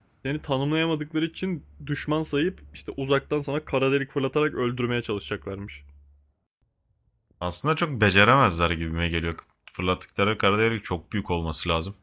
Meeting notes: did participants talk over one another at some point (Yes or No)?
No